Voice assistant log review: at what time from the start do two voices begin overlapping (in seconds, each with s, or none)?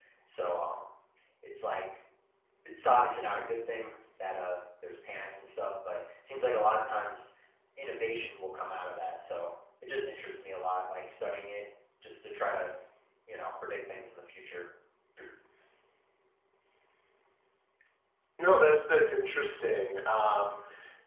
none